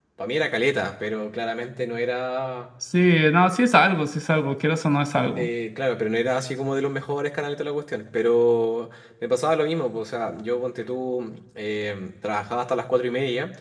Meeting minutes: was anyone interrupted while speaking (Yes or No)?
No